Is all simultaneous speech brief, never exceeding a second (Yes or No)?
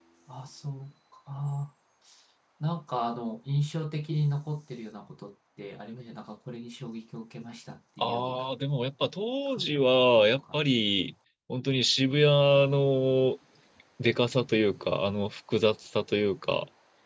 Yes